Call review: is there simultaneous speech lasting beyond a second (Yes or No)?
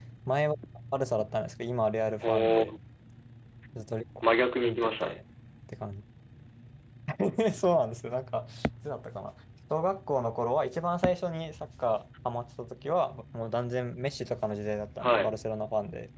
No